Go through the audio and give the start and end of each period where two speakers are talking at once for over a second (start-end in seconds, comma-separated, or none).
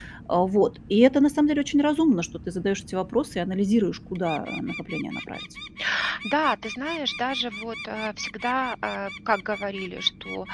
none